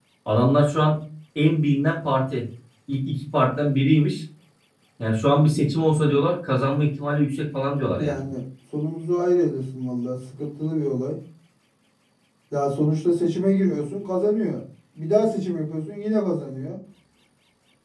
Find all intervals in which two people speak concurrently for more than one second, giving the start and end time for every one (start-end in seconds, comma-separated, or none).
none